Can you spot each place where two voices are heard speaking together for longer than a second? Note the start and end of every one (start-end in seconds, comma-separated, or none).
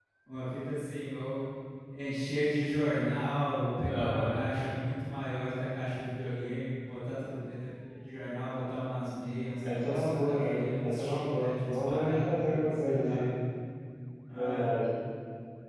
9.6-13.2